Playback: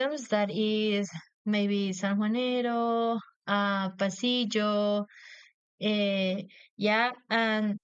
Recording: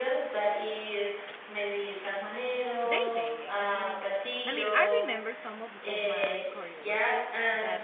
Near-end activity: present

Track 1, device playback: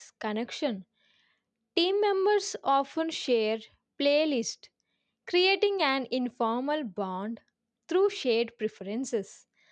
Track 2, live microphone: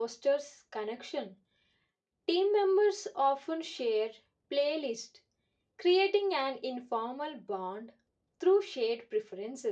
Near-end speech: none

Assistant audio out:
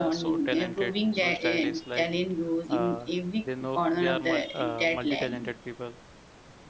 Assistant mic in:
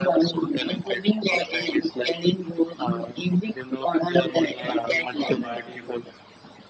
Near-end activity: present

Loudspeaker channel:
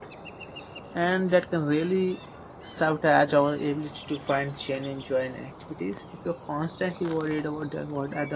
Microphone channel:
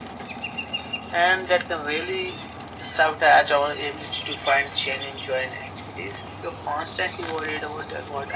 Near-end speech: none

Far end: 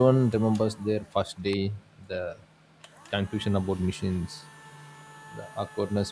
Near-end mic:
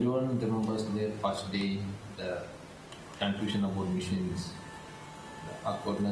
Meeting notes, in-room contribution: none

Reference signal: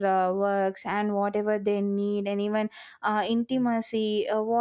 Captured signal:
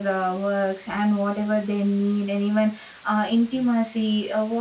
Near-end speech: none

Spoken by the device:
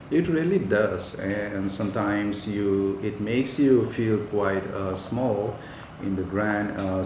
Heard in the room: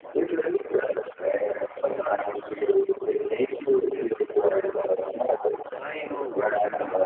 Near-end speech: present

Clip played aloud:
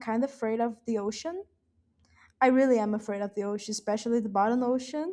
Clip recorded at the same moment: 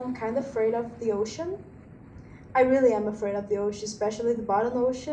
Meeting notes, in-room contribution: none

